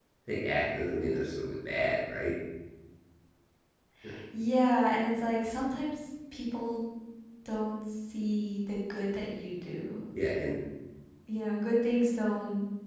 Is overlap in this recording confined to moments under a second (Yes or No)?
Yes